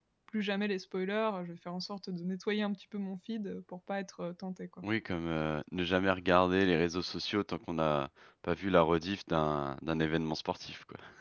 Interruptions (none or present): none